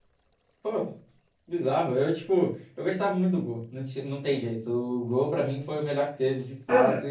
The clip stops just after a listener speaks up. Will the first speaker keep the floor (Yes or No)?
No